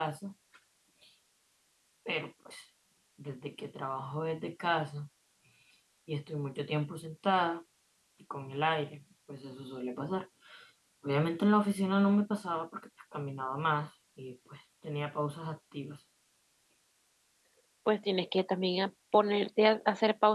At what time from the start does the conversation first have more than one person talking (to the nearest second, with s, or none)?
none